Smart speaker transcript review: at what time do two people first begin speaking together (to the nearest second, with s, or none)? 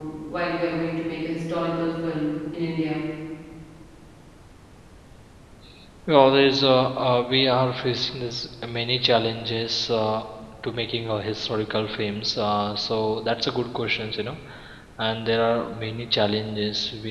none